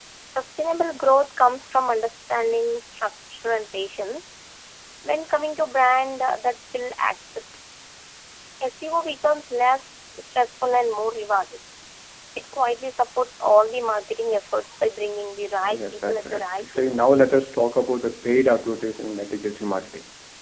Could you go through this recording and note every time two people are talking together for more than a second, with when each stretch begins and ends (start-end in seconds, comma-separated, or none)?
15.7-17.1